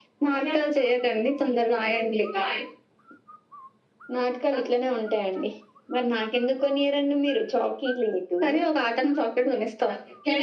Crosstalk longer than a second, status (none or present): none